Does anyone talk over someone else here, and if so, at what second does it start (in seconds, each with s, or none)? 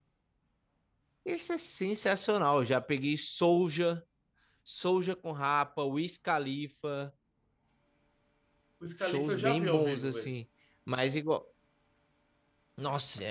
9.0 s